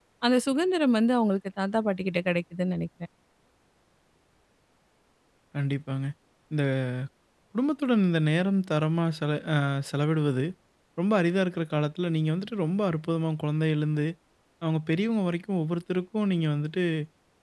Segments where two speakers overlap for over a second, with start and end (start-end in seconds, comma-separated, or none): none